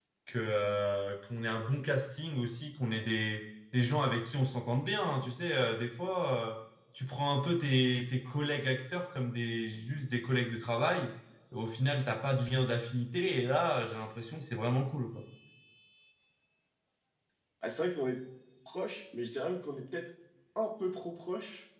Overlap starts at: none

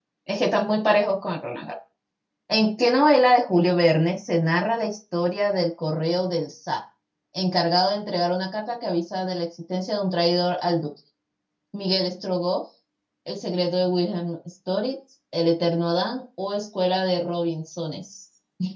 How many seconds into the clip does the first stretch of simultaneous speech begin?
none

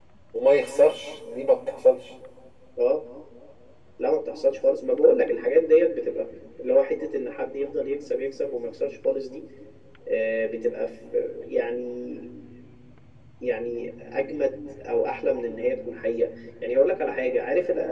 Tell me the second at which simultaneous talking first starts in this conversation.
none

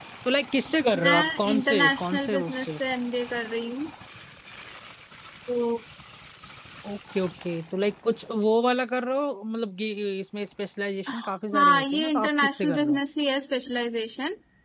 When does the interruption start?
1.0 s

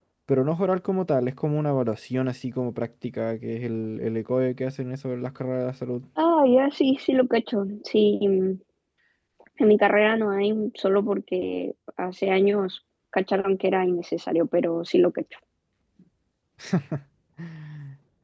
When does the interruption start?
none

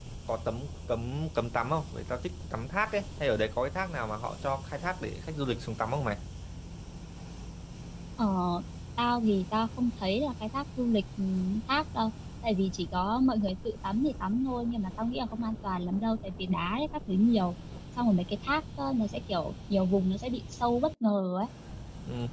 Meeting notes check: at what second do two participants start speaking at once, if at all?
none

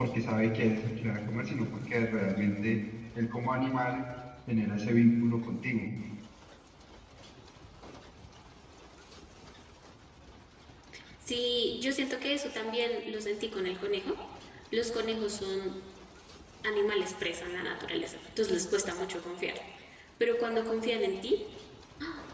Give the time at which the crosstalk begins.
none

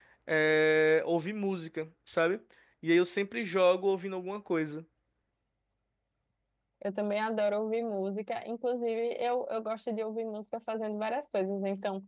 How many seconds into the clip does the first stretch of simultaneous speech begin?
none

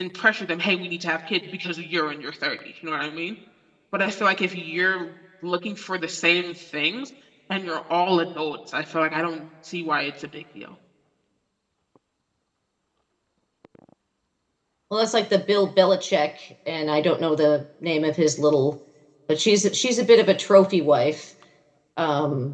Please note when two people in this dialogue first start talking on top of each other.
none

